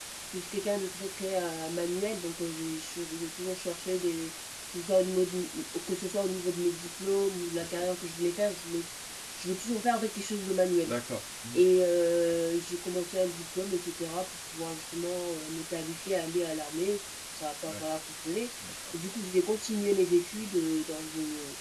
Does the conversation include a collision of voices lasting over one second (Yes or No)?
No